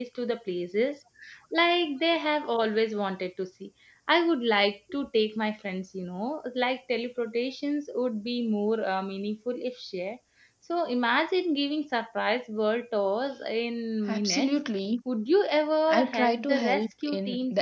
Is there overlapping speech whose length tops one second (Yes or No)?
Yes